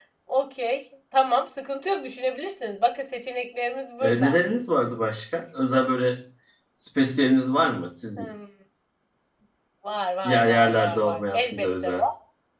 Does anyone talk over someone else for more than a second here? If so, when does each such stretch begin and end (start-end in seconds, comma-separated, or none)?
10.2-12.0